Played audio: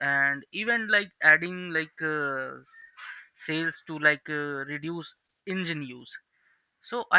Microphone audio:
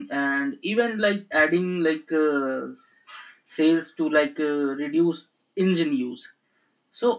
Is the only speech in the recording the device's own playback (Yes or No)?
Yes